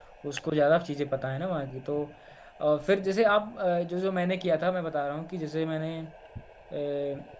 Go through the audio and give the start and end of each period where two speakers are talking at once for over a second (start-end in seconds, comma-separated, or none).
none